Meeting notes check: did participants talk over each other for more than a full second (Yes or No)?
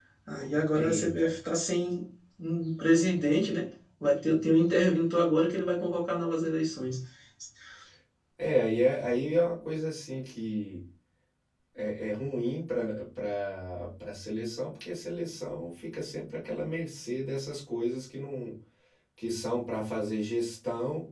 No